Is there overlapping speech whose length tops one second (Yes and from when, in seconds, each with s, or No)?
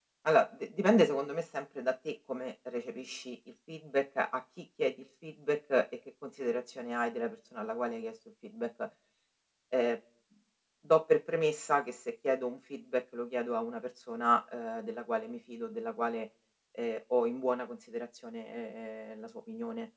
No